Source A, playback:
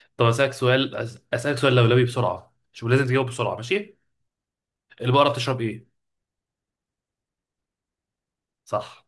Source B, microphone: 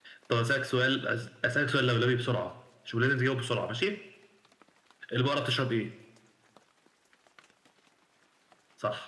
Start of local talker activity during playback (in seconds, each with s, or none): none